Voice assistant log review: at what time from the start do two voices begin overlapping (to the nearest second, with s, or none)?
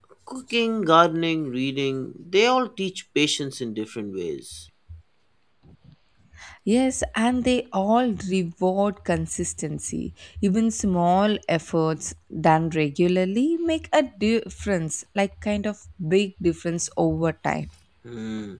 none